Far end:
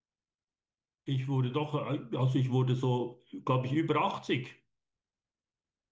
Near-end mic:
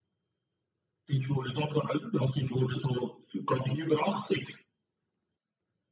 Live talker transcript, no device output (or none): none